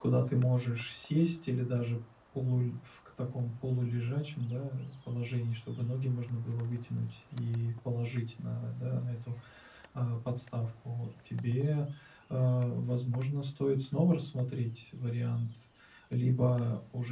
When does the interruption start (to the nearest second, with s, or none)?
none